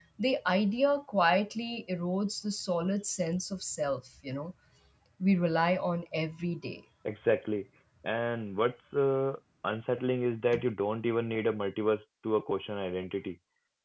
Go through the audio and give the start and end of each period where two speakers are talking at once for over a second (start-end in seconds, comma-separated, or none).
none